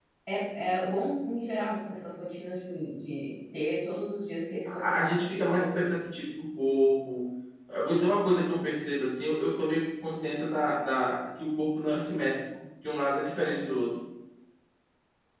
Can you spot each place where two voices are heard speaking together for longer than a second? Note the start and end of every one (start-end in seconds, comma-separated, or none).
4.6-5.9